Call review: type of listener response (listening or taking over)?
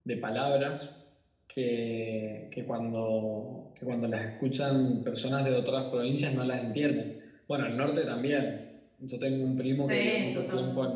listening